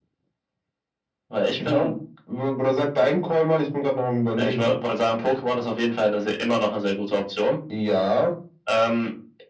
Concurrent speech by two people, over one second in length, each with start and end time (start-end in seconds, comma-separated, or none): none